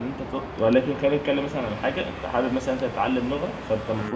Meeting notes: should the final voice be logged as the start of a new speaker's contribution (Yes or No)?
No